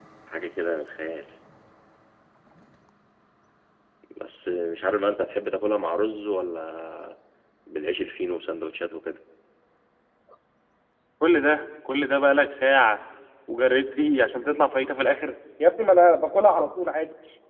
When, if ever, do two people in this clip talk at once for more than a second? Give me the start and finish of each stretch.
none

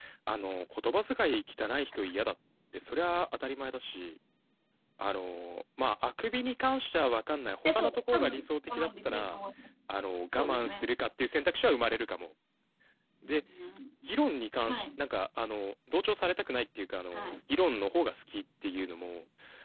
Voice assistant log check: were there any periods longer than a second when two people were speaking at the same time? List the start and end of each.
7.7-9.4

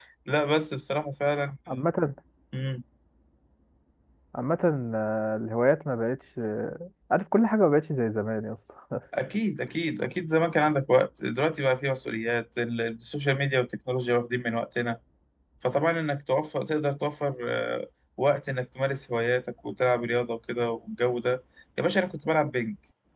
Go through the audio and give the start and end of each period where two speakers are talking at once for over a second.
none

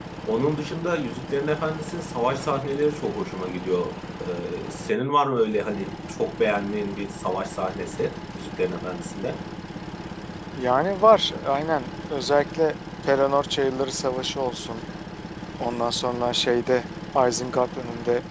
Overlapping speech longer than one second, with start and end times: none

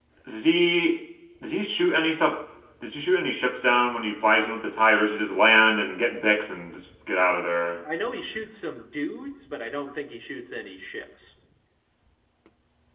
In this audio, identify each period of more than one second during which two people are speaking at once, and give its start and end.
none

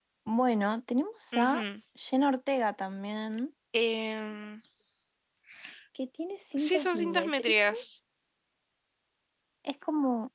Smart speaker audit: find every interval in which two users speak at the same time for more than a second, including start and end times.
6.6-7.8

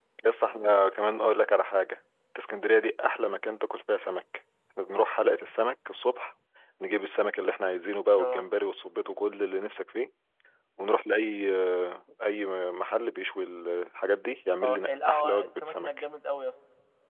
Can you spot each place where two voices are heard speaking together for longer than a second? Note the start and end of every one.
14.6-15.9

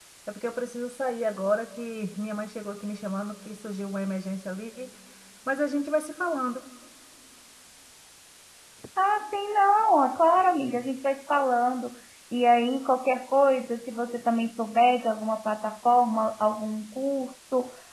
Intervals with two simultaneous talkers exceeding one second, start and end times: none

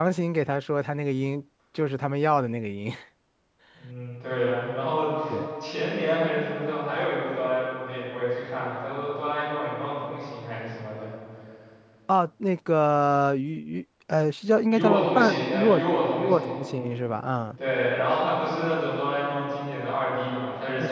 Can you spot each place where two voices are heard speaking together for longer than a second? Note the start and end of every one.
14.7-16.6

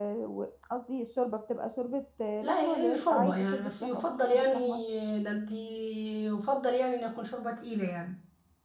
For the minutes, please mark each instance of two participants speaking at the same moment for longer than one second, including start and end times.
2.4-4.5

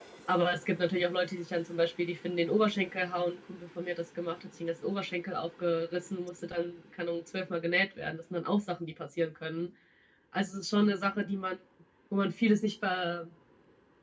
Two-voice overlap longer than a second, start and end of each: none

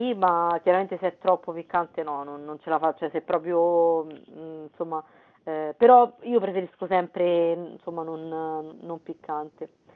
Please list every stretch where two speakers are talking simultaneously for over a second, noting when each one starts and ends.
none

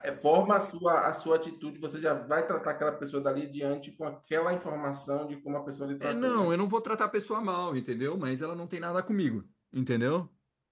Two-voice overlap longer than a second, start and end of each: none

